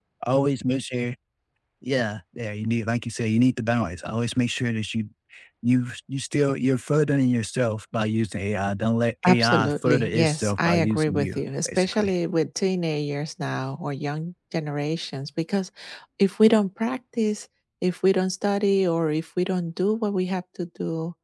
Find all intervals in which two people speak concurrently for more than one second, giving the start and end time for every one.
9.3-12.1

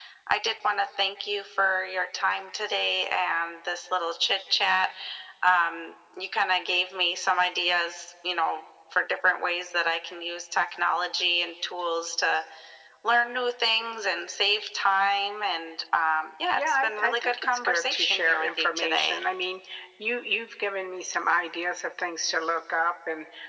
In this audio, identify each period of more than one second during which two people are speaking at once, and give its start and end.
16.6-19.2

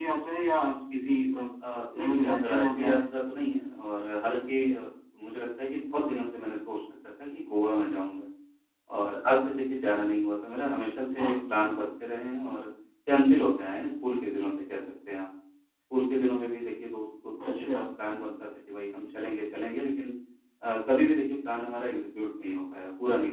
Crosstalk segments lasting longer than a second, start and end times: 1.7-3.0

